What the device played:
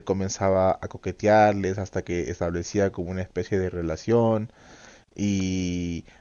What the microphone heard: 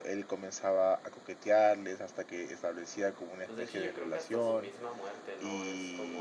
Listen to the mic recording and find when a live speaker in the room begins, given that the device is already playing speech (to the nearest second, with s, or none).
3 s